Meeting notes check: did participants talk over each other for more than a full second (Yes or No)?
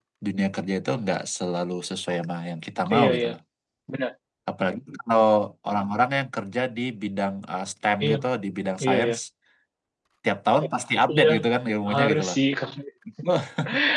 No